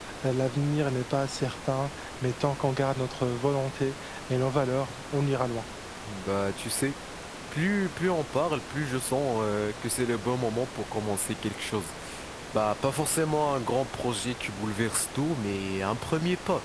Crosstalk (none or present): none